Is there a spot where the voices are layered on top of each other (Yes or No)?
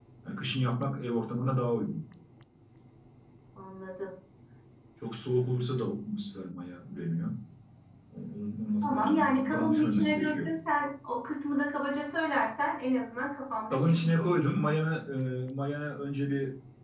Yes